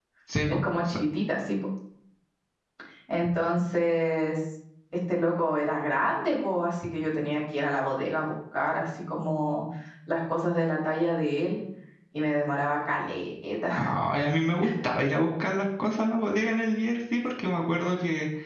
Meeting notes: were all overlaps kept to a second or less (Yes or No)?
Yes